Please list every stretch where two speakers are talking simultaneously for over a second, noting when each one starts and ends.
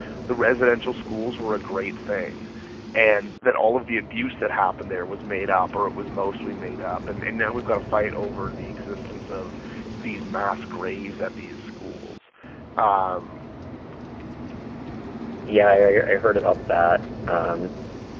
none

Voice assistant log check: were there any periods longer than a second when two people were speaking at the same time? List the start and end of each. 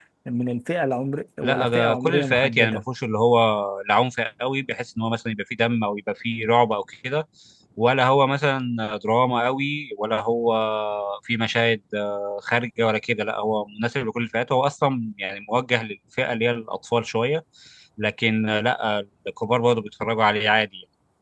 1.4-2.8

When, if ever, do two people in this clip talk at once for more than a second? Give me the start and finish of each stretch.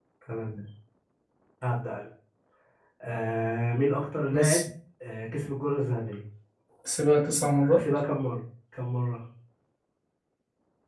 none

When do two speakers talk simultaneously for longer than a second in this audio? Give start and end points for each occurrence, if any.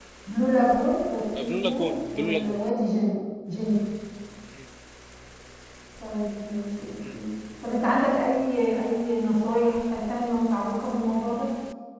1.4-2.6

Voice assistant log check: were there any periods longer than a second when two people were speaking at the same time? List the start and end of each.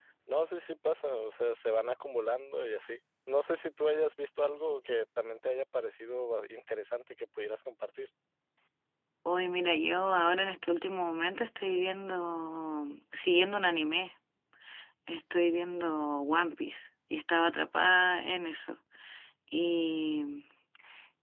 none

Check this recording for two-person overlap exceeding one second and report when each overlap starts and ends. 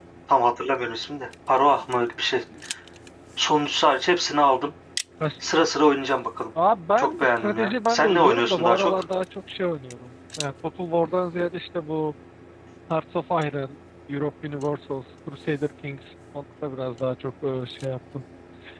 7.0-8.9

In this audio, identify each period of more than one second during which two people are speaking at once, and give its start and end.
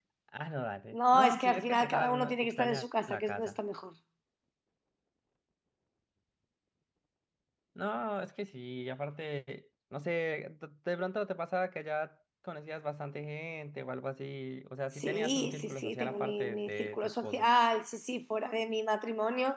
1.1-3.5, 15.0-17.5

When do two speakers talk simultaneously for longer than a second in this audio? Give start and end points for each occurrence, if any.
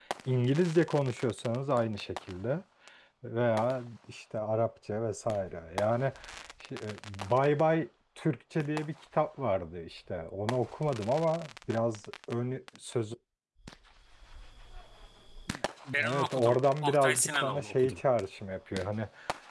16.0-18.0

